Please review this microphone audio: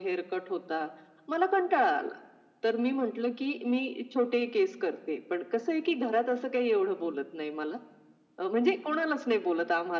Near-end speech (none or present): none